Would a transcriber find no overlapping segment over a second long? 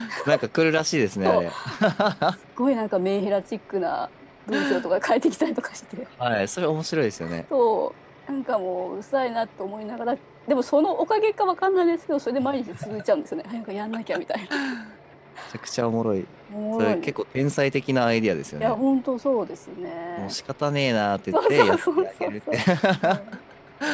No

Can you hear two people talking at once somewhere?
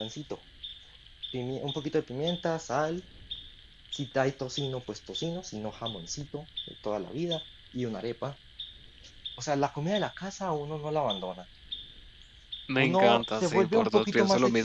Yes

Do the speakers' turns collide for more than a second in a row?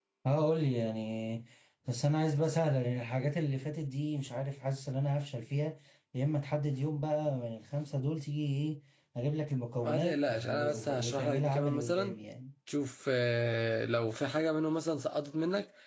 Yes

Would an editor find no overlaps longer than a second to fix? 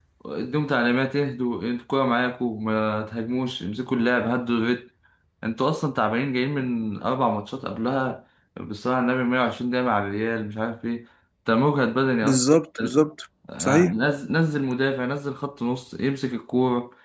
Yes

